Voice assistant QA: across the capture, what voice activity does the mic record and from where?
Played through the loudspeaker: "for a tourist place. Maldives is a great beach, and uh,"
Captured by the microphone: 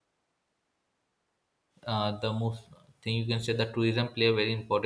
user only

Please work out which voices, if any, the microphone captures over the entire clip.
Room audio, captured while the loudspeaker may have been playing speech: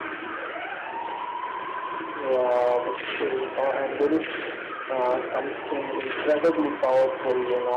echo only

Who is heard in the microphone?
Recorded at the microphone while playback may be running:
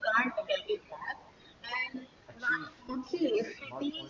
both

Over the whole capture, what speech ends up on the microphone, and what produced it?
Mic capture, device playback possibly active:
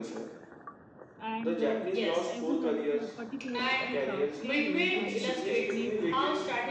both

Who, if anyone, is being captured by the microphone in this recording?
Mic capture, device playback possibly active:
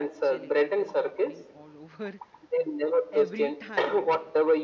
both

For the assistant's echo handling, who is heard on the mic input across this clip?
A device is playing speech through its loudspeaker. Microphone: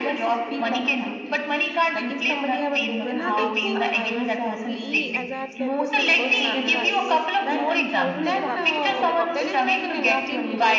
both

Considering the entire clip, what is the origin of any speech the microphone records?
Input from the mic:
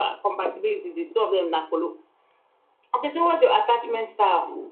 echo only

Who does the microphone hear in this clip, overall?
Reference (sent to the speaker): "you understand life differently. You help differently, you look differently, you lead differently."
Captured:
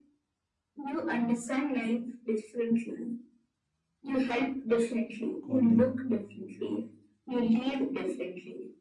both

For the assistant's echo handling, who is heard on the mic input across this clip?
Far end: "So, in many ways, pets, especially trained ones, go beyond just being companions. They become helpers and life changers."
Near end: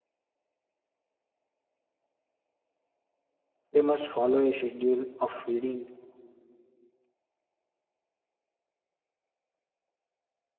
user only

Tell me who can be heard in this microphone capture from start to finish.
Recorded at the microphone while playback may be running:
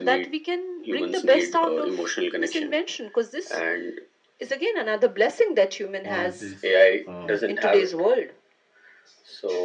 both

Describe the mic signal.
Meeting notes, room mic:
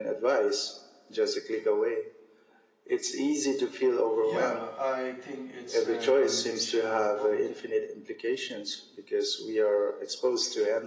both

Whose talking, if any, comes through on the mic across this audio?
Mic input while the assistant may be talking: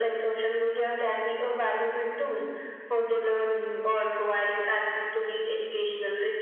echo only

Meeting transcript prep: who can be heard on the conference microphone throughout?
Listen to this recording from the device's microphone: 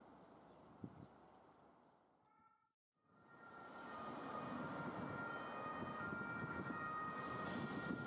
neither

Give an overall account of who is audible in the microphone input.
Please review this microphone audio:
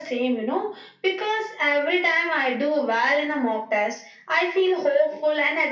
echo only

